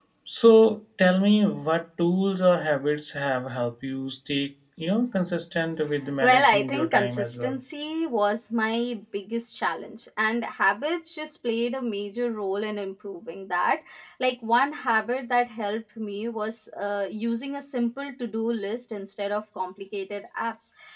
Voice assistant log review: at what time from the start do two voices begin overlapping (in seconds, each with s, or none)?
6.2 s